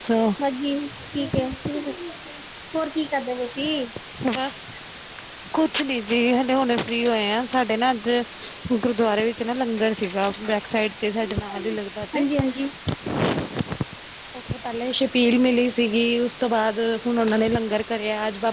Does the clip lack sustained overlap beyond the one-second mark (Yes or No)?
Yes